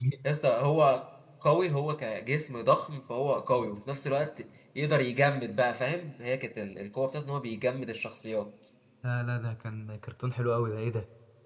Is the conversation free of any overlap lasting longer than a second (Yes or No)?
Yes